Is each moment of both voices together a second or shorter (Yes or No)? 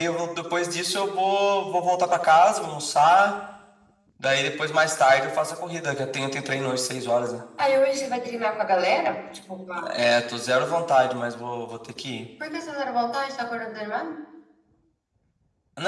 Yes